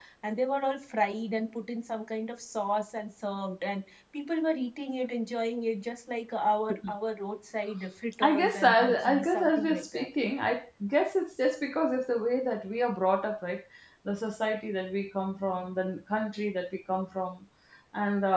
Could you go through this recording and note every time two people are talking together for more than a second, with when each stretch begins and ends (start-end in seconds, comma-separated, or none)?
8.2-10.1